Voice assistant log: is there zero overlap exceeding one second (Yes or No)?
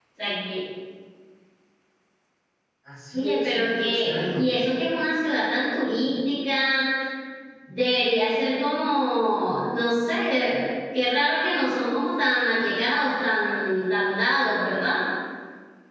No